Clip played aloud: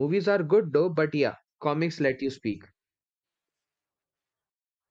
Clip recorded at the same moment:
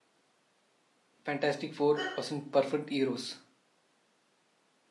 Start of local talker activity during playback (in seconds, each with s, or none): 1.3 s